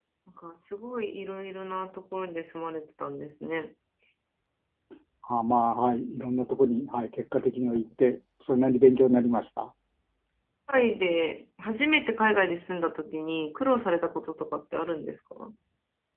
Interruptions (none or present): none